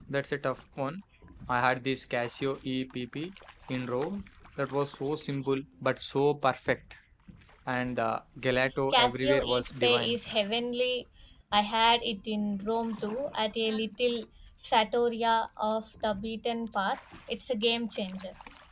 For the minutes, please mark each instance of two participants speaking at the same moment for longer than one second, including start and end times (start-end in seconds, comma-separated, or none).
8.9-10.1